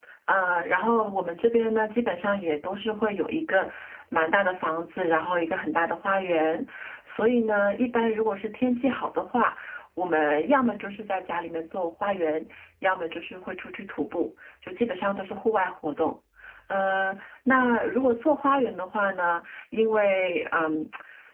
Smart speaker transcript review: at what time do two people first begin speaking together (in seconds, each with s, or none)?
none